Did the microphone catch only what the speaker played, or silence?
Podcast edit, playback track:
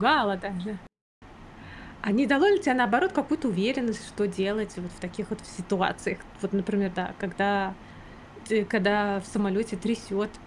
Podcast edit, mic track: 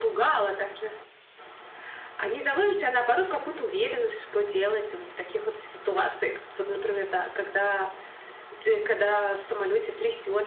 Yes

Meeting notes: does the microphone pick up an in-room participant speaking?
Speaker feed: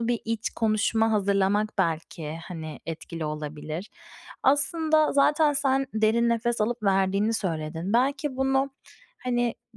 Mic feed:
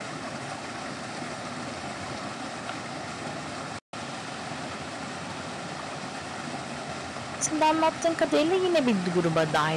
Yes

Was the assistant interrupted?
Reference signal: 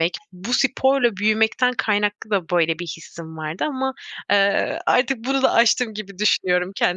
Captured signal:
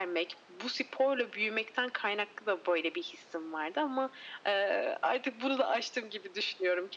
No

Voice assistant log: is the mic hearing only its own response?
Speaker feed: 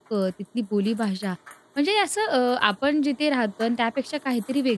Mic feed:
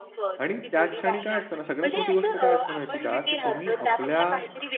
No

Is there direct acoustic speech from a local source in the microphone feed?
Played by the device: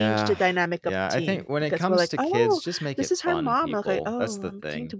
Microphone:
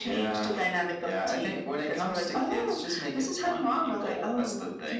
No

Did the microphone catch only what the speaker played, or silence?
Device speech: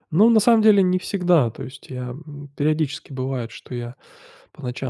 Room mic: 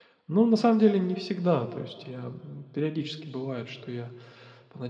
Yes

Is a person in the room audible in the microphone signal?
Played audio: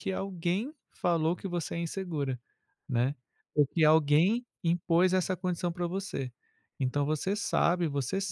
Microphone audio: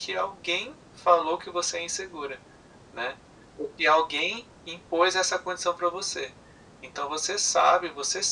No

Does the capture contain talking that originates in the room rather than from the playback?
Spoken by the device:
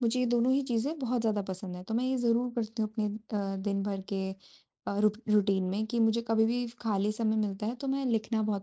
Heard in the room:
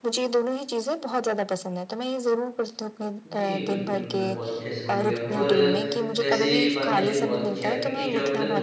Yes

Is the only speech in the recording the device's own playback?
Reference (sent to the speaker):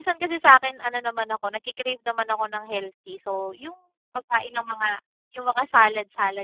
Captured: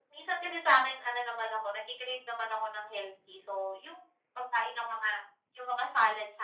Yes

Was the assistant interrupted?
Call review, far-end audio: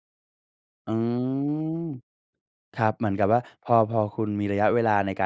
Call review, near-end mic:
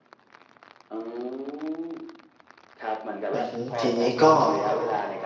Yes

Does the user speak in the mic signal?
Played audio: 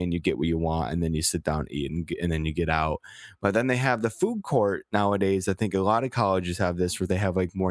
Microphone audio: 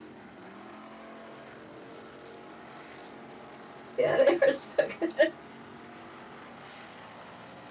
Yes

